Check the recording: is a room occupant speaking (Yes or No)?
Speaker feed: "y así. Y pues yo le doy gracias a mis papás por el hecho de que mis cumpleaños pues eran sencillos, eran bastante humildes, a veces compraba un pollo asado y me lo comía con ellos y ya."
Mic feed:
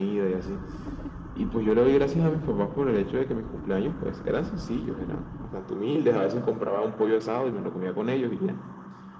No